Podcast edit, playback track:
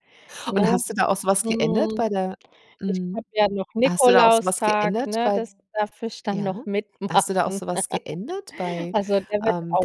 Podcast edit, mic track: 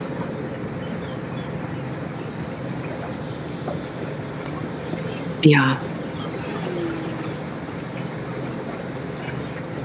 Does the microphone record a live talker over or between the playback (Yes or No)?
Yes